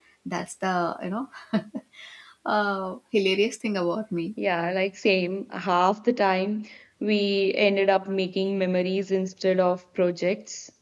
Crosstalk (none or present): none